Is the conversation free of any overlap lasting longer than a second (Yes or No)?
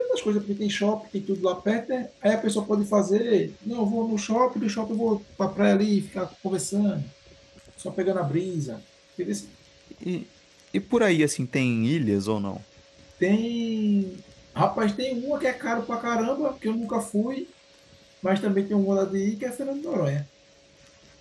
Yes